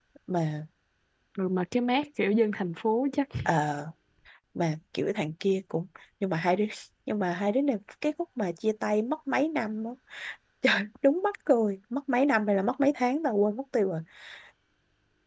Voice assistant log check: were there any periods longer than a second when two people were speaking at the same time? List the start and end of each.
none

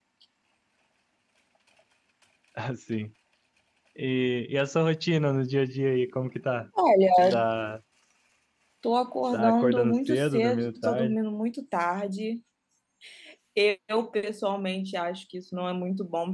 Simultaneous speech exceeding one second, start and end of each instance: 9.3-11.2

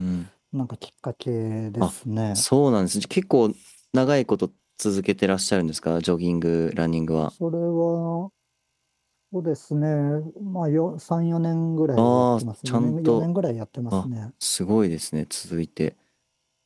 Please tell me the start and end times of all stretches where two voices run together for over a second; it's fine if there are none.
12.0-13.2

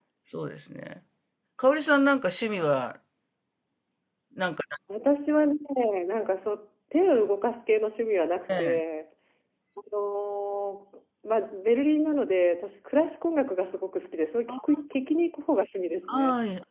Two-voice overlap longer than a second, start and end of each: none

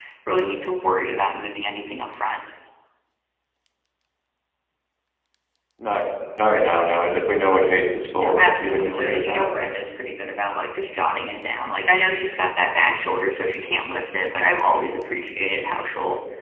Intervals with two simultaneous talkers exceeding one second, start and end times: 8.2-9.5

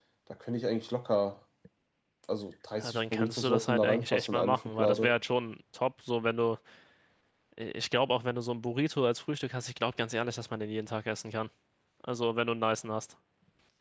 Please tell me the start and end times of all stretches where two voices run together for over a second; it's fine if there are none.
2.8-5.1

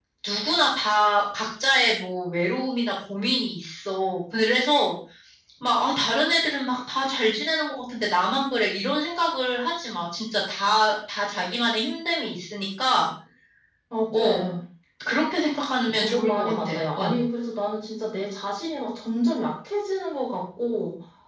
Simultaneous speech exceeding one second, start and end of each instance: 15.9-17.2

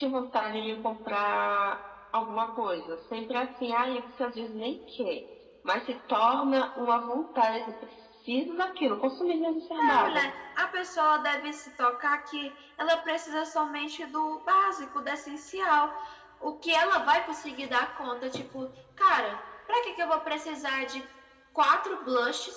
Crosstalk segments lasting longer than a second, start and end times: none

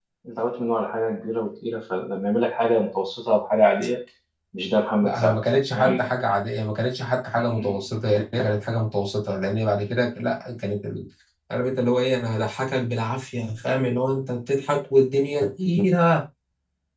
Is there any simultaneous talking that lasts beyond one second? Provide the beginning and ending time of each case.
none

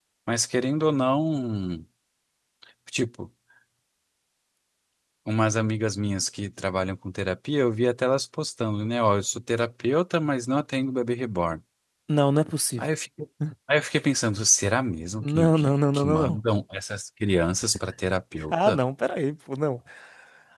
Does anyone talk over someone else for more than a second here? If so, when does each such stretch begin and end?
15.2-16.4

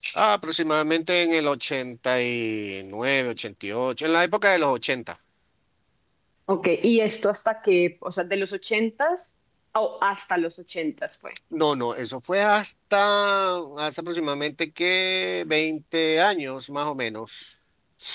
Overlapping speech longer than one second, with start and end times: none

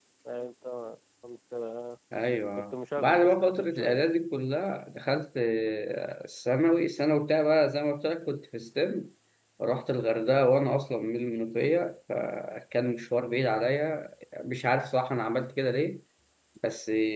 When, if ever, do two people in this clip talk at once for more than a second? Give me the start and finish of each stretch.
2.5-4.1

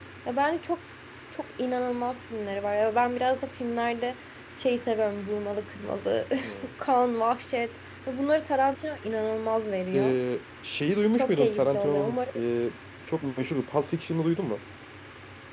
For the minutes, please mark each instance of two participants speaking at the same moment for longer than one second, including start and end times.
11.1-12.3

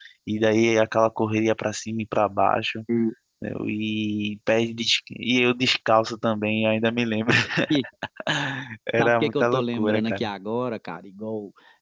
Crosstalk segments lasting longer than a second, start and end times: 9.0-10.3

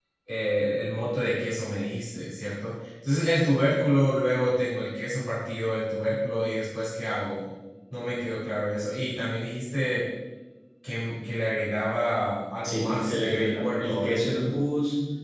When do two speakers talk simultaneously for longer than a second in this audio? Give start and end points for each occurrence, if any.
12.6-14.4

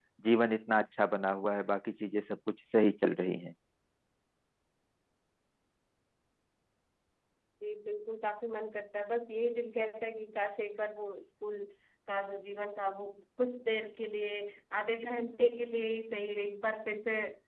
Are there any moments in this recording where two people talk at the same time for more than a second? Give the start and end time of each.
none

